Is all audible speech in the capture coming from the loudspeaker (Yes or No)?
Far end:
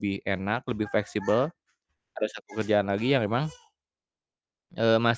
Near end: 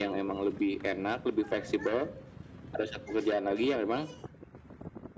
Yes